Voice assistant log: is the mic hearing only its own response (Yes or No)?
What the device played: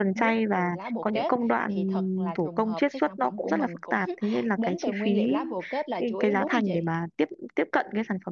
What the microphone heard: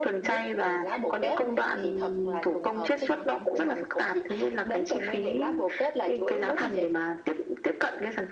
Yes